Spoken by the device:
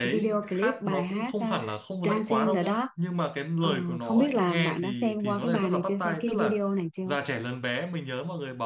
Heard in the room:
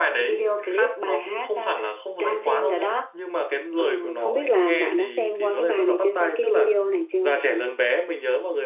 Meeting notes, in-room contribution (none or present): none